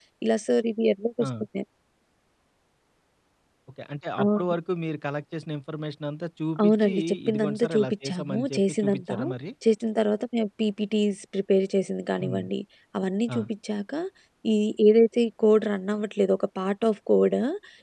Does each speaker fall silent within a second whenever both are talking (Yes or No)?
No